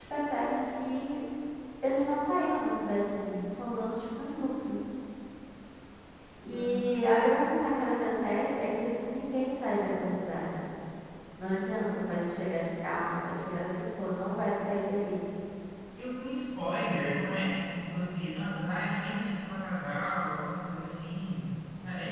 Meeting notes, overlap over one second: none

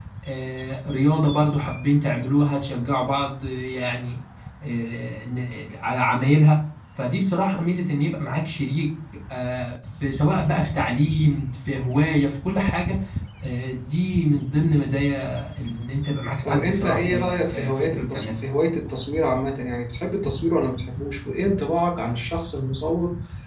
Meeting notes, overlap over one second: present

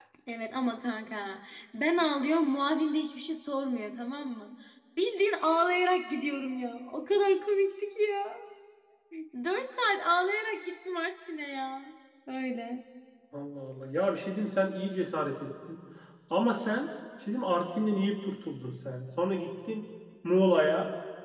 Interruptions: none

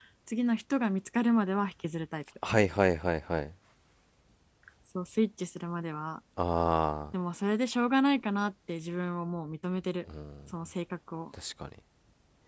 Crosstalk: none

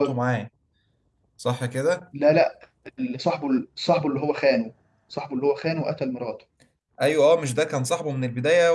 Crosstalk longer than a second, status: none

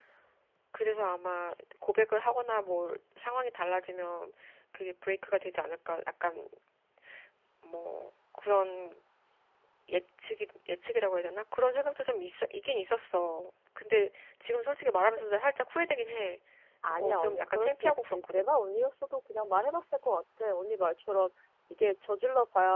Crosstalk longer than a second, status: present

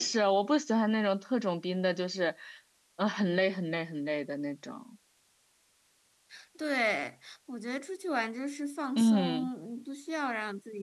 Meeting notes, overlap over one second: none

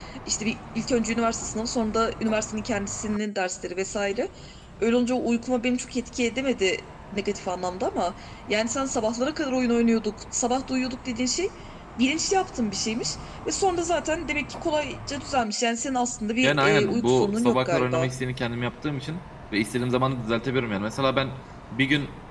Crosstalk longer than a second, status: present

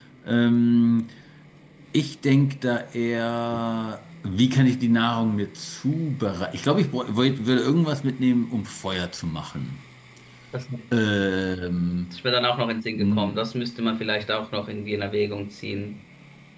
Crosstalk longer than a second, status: none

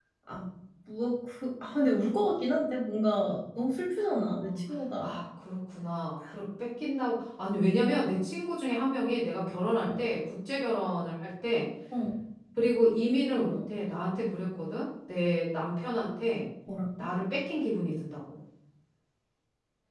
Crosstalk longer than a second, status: none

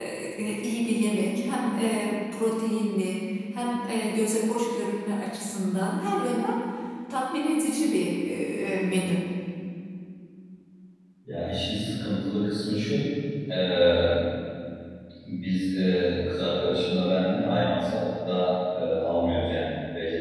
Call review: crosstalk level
none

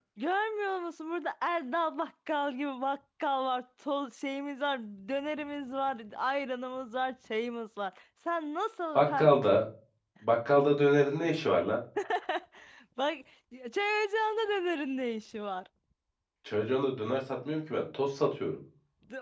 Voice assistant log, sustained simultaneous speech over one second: none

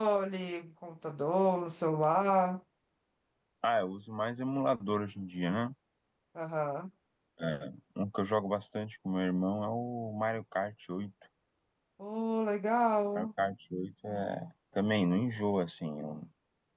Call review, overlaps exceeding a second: none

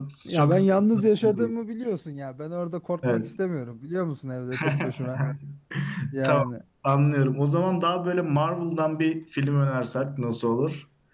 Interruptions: present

